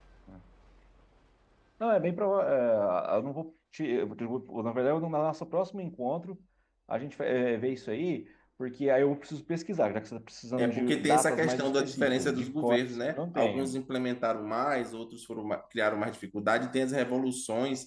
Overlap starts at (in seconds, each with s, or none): 10.6 s